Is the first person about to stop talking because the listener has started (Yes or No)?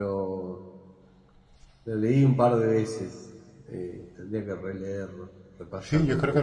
Yes